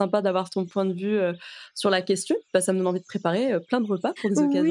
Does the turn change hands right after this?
Yes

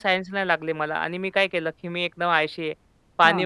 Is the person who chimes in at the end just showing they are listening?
Yes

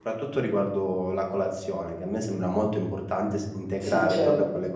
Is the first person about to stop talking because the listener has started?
No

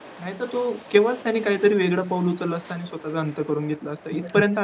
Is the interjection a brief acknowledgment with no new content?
No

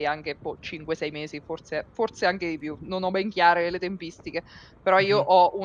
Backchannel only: Yes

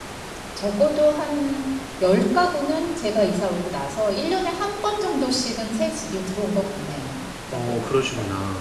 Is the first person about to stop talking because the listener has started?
Yes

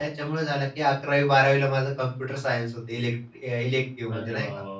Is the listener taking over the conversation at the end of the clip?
Yes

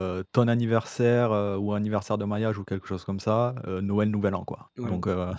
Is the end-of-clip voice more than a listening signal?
Yes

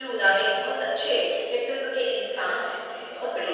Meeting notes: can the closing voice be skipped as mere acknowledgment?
No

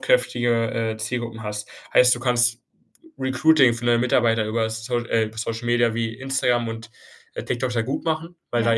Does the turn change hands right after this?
No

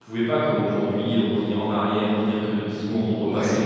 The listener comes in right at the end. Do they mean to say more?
No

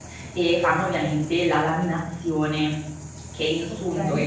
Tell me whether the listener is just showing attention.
Yes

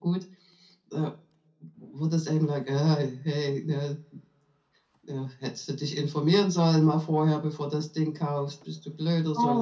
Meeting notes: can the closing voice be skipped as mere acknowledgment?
No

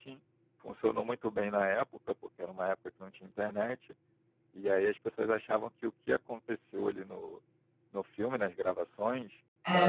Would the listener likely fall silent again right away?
Yes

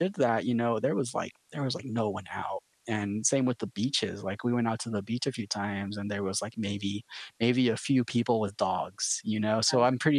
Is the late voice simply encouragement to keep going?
Yes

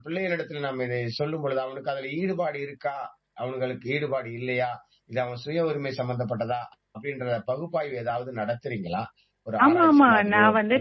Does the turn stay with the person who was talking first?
No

